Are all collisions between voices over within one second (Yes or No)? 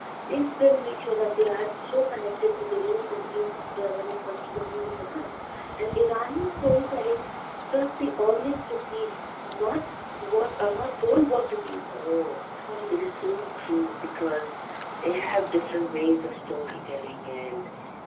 Yes